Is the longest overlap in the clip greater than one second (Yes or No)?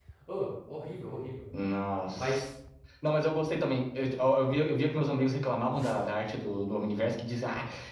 No